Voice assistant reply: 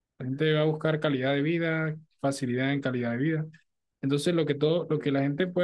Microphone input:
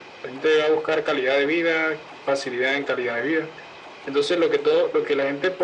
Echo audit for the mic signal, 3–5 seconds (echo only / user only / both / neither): echo only